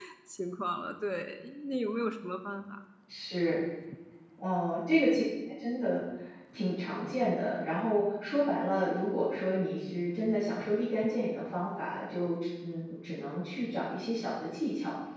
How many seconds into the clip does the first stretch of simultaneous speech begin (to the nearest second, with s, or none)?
none